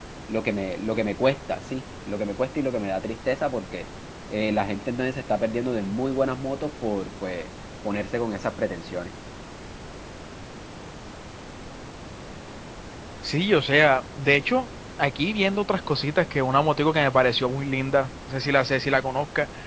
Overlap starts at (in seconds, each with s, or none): none